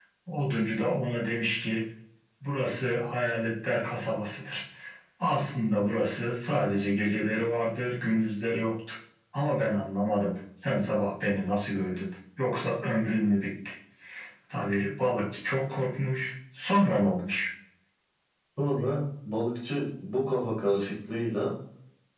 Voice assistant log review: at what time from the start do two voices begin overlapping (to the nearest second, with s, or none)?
none